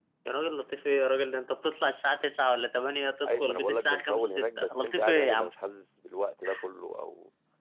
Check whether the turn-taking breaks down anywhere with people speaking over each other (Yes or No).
Yes